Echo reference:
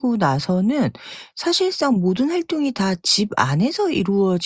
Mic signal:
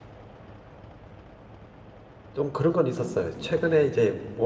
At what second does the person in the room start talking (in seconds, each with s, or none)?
2.3 s